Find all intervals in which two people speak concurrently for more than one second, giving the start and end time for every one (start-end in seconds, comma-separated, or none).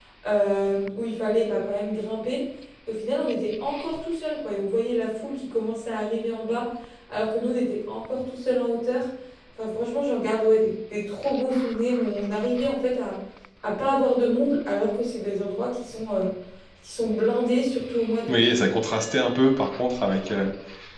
none